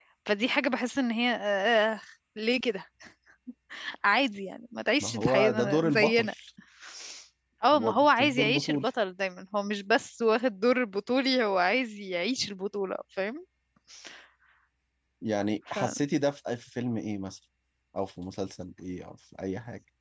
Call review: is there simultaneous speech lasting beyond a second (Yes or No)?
Yes